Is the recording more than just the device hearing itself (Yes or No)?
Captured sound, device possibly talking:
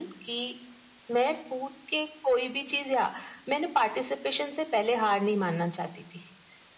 No